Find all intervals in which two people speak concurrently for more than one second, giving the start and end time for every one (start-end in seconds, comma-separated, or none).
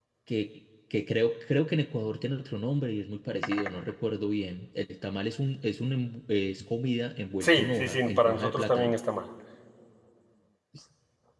7.4-9.0